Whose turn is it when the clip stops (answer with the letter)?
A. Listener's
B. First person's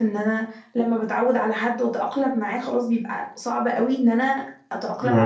B